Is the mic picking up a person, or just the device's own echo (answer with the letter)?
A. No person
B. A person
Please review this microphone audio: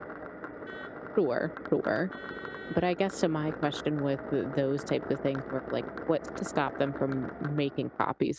B